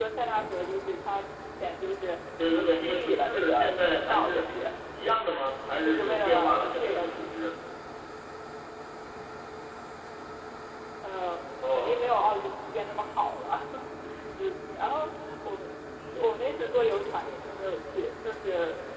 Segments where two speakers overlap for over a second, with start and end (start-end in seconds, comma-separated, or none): 2.6-4.5, 5.8-7.1